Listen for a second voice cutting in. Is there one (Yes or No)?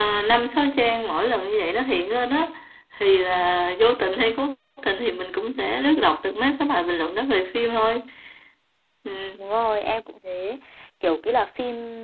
No